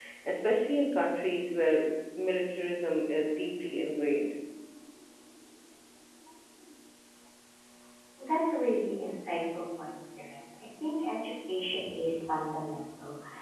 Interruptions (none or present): none